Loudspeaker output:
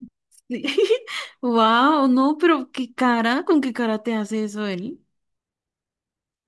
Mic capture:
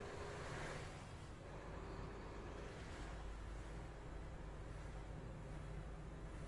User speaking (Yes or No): No